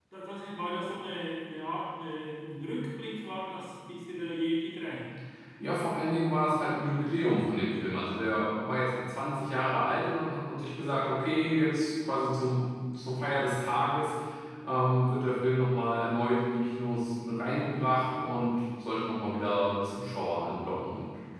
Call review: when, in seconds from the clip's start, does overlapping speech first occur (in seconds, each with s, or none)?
none